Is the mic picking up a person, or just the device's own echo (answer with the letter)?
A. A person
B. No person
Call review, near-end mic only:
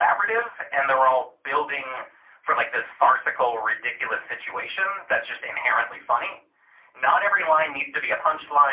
B